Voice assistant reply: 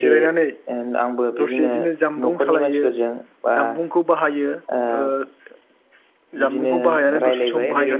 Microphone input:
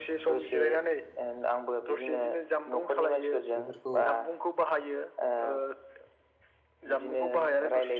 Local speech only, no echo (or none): बेफोरखौ